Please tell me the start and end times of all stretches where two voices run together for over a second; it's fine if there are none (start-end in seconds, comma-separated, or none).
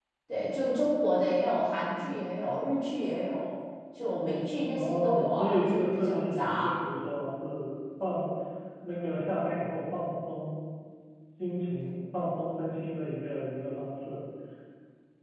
4.7-6.8